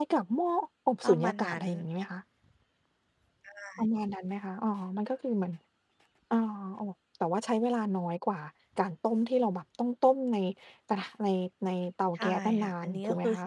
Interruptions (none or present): present